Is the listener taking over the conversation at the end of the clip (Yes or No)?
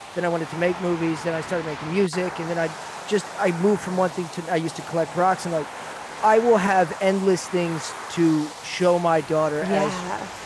No